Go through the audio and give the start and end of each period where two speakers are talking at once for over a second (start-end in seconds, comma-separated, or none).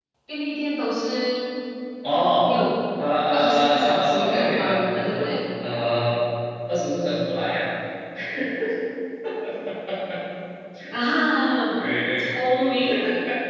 3.3-5.2